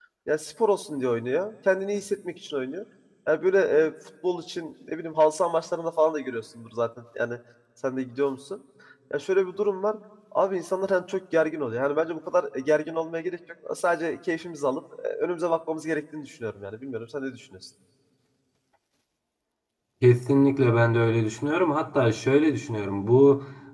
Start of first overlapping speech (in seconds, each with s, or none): none